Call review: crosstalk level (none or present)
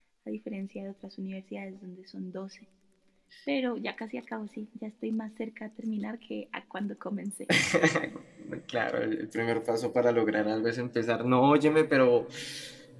none